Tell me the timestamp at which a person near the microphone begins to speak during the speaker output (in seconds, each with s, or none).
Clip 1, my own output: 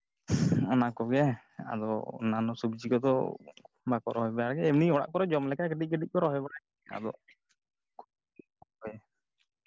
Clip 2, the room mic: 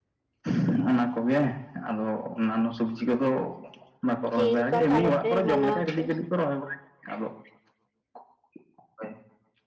4.3 s